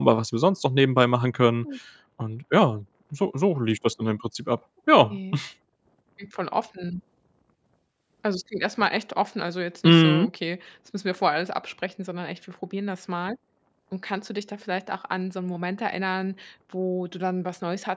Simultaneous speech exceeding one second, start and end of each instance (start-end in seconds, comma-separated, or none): none